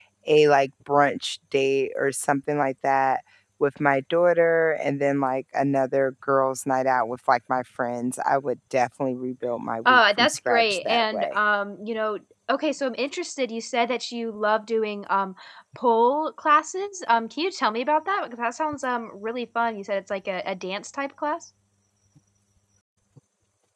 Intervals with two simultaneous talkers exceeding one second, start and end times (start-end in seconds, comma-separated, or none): 9.9-11.3